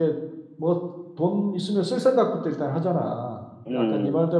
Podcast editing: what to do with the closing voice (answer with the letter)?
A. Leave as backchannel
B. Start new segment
A